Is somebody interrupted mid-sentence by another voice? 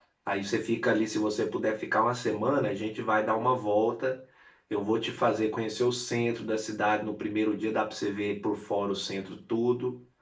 No

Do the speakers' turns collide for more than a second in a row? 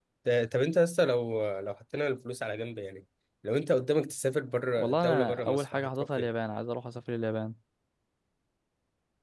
Yes, from 4.8 s

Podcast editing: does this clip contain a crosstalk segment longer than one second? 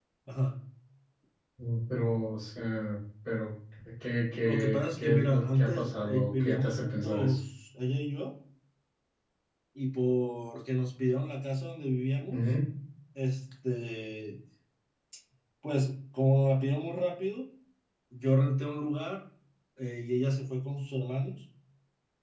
Yes, from 4.5 s

